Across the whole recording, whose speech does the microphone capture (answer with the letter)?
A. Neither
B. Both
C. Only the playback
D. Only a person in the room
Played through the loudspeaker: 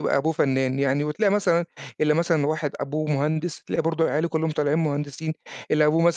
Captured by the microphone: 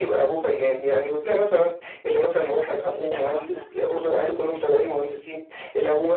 B